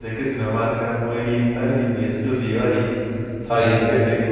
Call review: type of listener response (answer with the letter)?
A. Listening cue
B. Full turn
A